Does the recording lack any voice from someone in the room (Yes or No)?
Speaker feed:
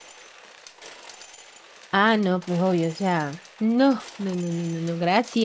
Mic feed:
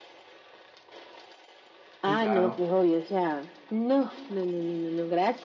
No